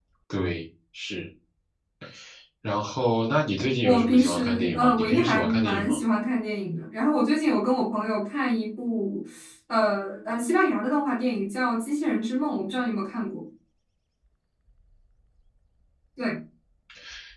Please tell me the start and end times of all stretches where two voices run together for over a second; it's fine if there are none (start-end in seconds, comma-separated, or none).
3.8-6.0